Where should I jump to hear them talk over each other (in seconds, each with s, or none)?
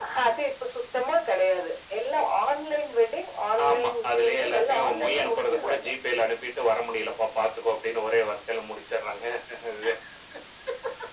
3.6 s